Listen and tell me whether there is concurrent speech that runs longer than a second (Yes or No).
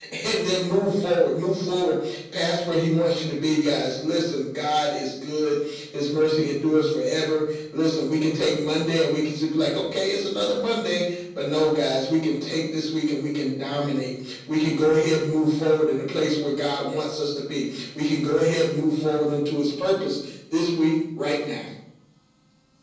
No